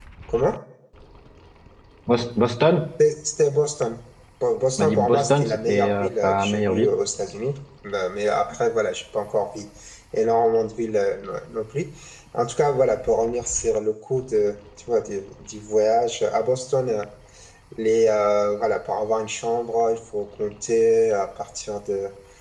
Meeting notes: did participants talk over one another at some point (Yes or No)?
Yes